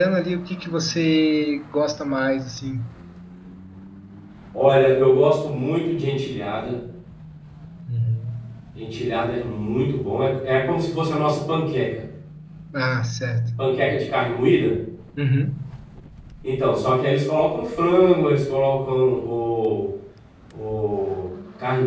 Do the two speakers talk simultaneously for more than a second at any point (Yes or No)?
No